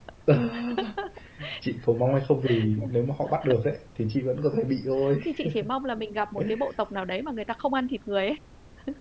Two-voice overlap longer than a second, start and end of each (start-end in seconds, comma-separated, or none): none